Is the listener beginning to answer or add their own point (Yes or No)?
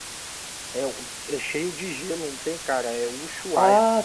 Yes